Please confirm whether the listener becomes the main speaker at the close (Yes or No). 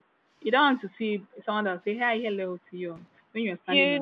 Yes